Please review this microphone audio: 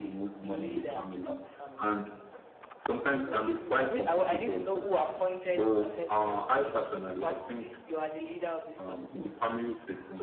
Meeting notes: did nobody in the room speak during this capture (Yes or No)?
Yes